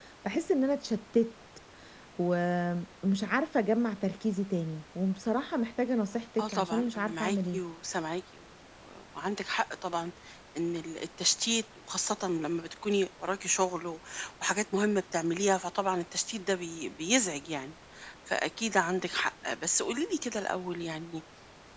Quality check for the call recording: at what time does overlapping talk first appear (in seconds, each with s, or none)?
6.4 s